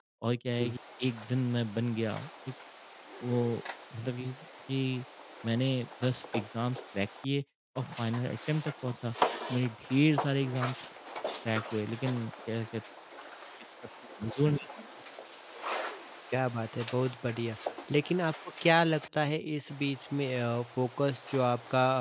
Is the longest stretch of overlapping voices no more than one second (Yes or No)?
Yes